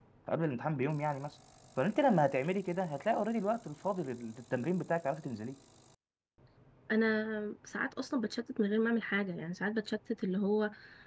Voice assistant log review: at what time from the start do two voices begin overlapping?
none

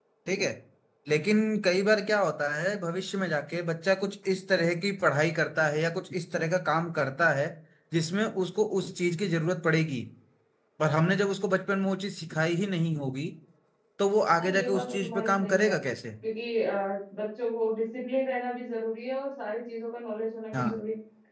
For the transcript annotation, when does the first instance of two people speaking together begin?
14.4 s

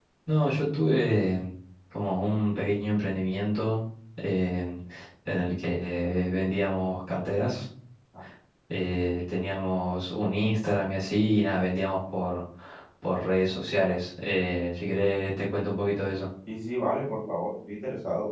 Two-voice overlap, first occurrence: none

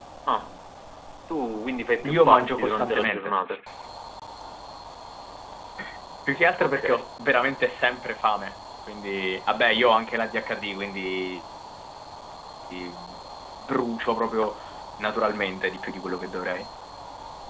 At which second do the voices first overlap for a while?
2.1 s

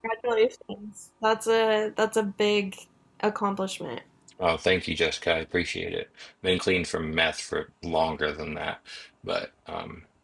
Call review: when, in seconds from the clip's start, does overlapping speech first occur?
none

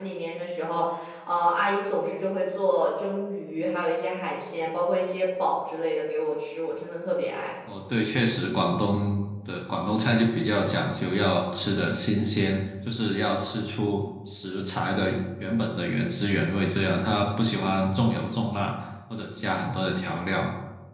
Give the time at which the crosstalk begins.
none

